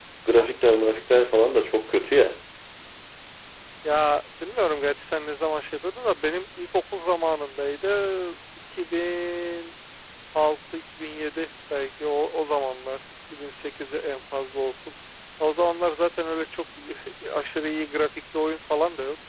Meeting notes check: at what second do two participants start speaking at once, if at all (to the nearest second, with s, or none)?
none